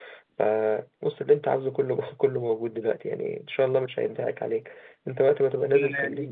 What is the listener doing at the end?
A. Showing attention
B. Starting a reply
B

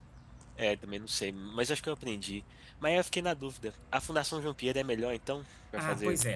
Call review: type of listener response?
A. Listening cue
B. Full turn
B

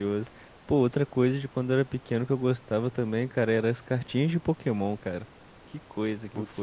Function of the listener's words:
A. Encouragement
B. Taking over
B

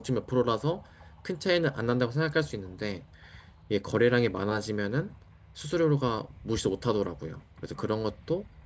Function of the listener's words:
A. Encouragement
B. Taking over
A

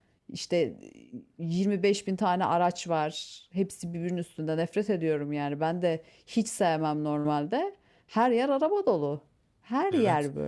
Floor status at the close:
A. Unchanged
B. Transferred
B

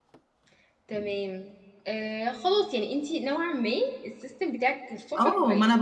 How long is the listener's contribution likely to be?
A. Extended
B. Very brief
A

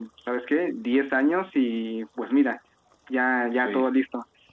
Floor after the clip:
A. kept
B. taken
A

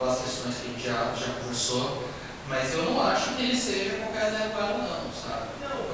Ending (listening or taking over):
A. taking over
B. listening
A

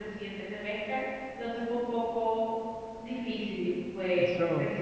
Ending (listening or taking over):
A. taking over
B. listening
A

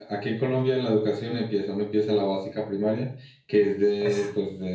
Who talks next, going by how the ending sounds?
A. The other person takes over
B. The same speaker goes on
B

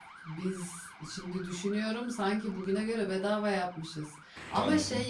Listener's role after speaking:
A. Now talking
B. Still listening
B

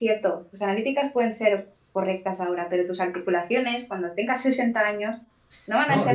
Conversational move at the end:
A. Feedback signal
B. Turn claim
B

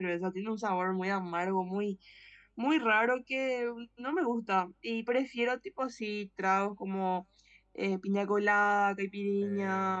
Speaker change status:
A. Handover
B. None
B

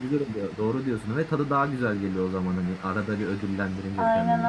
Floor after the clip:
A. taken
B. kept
A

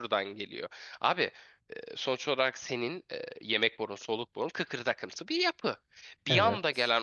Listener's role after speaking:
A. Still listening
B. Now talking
A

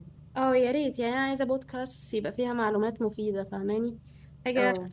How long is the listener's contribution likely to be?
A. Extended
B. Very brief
B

